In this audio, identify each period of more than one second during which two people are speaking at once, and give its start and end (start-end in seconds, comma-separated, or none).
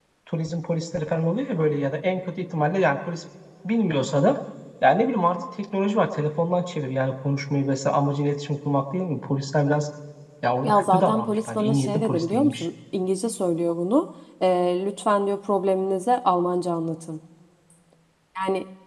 10.6-12.7